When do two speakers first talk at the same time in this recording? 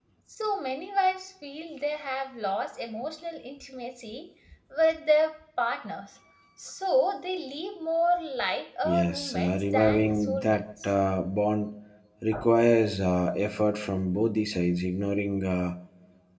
8.8 s

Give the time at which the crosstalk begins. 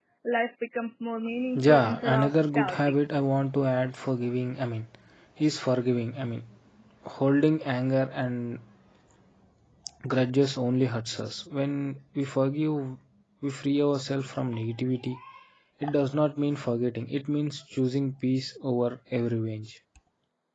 1.6 s

